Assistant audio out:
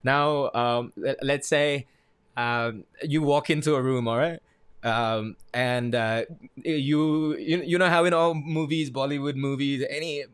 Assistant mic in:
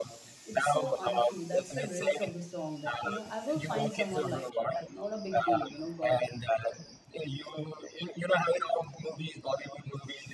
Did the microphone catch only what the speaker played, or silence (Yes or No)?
No